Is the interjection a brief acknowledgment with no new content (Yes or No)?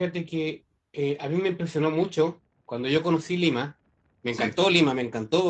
Yes